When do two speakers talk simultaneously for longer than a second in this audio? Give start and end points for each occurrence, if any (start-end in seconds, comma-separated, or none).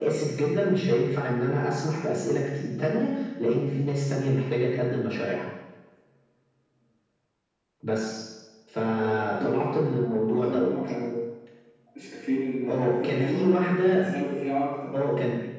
8.8-10.7, 12.7-14.0